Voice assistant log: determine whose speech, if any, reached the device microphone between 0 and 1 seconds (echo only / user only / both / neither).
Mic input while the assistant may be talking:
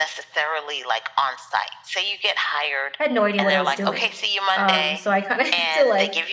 echo only